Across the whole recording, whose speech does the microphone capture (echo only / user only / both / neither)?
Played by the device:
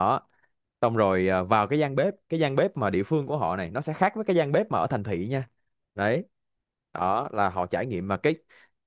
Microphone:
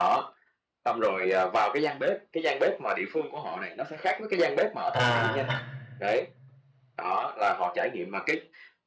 both